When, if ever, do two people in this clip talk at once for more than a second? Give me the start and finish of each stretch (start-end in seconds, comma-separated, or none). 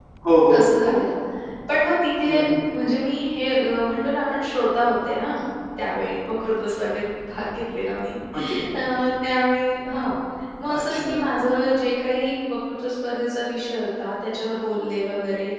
none